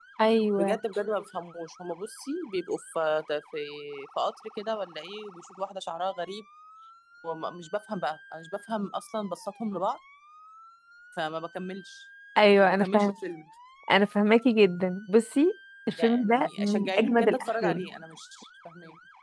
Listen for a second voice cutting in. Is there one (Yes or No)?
Yes